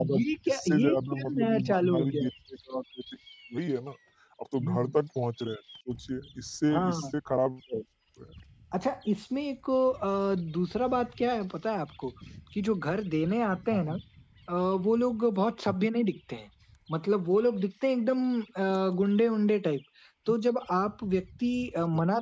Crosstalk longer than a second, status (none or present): present